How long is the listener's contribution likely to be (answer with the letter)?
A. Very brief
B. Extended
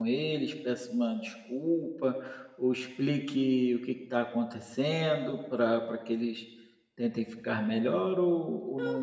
B